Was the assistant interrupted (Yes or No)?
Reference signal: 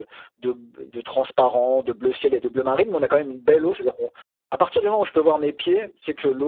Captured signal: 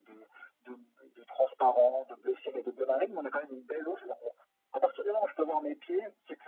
No